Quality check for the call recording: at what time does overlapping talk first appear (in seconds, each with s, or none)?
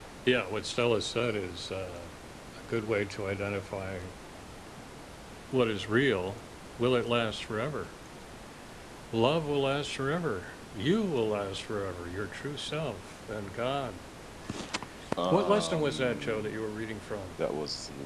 15.3 s